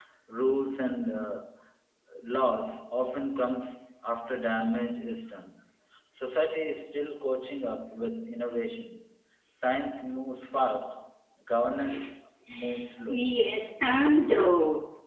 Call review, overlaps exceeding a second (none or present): none